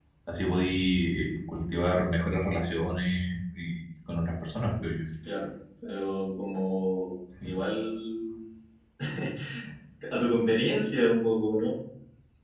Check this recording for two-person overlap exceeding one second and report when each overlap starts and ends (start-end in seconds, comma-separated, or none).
none